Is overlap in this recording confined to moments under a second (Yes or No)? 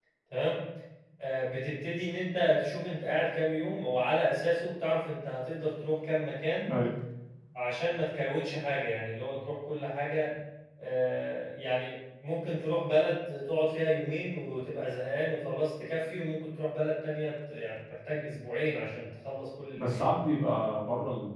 Yes